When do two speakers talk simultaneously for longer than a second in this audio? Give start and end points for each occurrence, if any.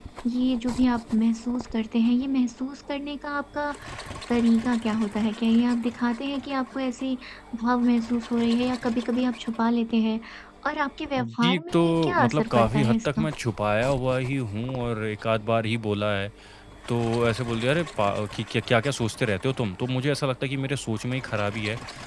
11.2-13.3

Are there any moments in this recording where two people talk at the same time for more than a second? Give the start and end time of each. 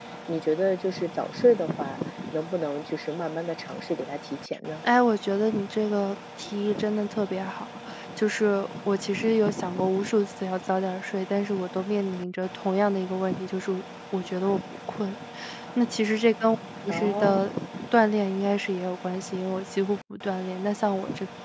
none

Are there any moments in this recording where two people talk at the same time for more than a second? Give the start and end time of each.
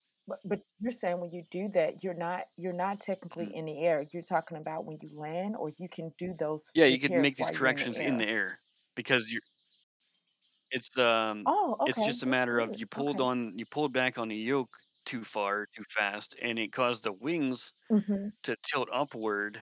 6.9-8.2, 11.9-13.3

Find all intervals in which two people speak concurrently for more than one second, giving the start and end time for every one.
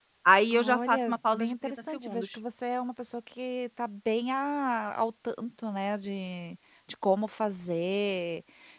0.5-2.4

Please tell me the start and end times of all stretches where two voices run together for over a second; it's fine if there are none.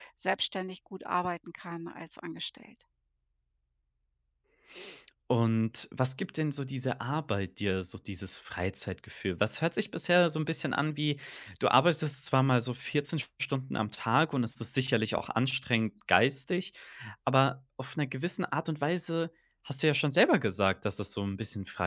none

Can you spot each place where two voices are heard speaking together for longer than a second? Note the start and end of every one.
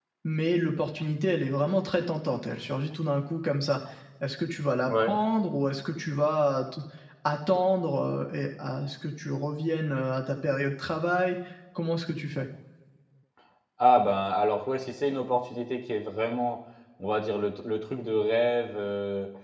none

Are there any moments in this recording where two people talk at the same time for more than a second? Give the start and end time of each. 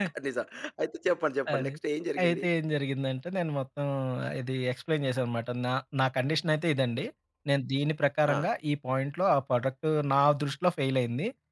none

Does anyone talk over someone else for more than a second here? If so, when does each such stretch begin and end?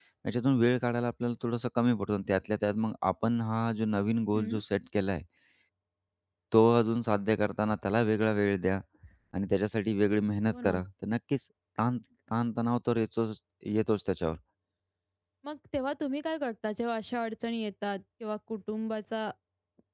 none

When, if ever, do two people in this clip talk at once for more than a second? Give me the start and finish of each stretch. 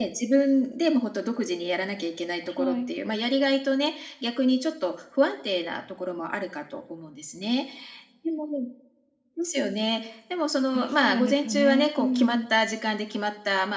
10.7-12.4

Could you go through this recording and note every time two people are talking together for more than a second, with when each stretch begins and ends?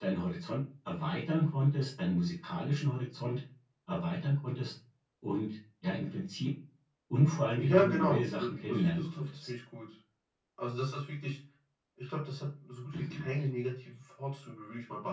7.6-9.3

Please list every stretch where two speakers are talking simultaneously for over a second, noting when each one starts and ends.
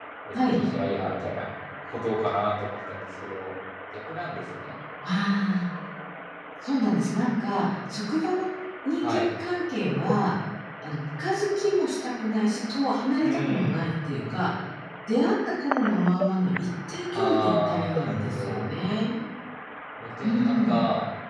17.1-18.6

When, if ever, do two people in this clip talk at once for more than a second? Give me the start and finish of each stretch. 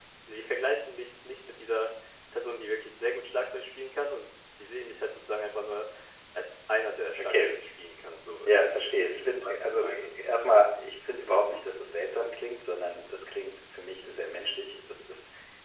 8.4-10.1

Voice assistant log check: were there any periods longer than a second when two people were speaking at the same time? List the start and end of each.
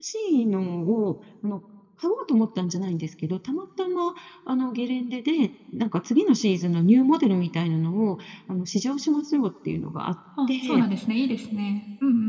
none

